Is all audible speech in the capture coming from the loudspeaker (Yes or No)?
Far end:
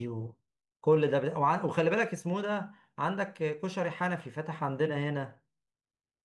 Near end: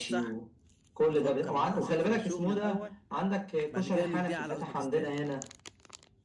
No